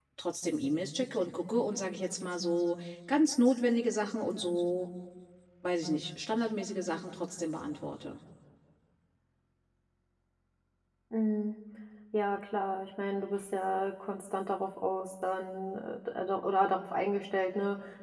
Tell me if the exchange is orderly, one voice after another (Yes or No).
Yes